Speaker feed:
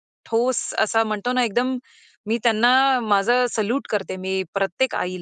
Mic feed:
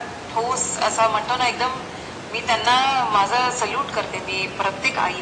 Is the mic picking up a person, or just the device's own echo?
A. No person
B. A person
A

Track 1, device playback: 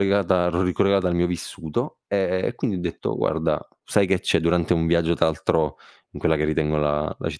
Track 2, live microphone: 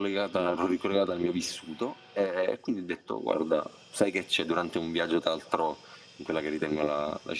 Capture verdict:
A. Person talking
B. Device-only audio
B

